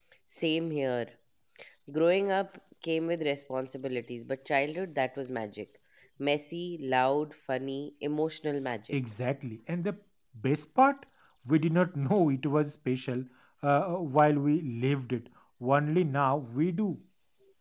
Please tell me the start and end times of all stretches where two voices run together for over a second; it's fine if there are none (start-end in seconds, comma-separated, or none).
none